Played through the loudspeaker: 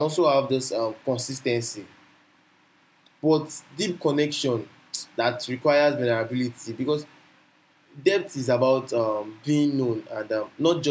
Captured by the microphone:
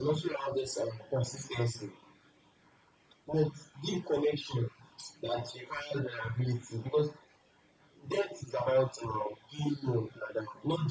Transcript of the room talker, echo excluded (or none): none